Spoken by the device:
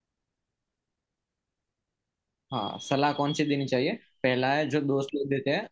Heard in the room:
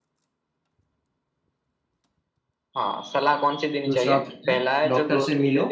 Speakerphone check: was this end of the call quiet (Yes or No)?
No